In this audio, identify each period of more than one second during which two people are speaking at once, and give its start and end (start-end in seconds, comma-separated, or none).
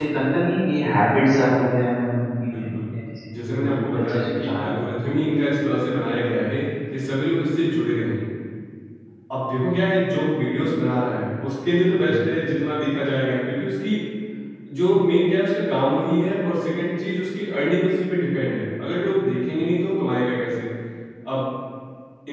3.3-4.8